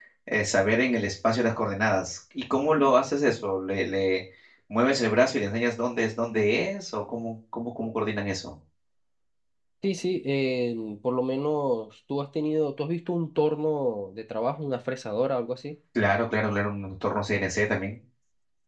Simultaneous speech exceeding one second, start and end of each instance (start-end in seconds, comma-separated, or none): none